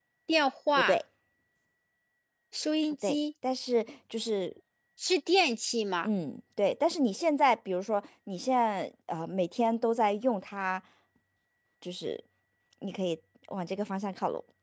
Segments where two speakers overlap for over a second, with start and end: none

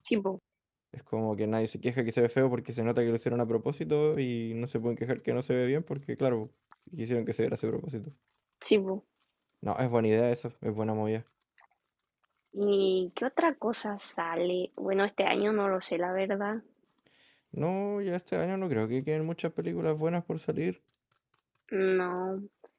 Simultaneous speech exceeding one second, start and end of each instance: none

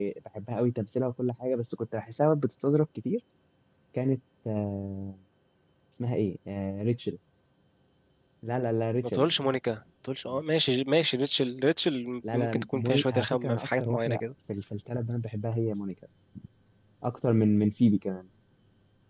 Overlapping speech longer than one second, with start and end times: 12.3-14.2

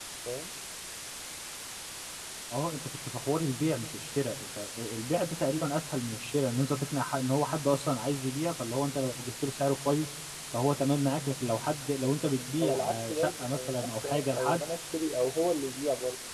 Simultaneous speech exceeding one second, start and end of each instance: 12.6-14.6

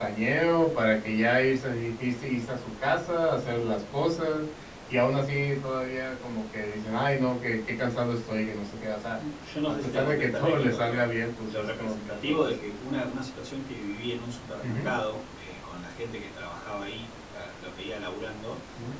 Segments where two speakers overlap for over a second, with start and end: 9.7-11.0, 11.5-12.7

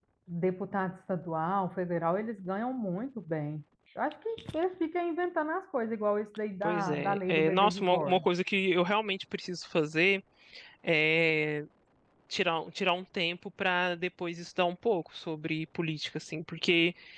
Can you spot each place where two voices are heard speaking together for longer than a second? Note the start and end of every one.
6.6-8.2

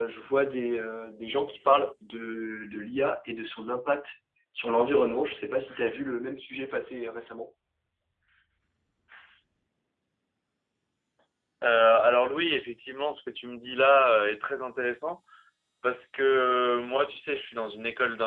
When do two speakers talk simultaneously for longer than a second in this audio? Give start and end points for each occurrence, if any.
none

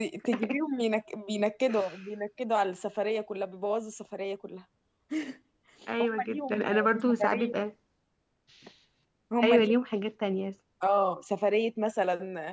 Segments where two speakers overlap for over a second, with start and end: 6.0-7.5

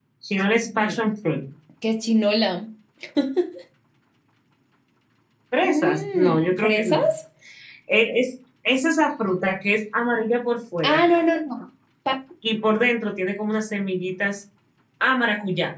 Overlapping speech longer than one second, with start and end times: 5.6-7.0

